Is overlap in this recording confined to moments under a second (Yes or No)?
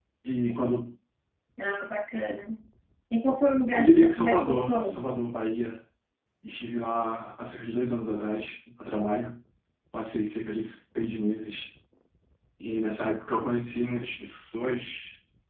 No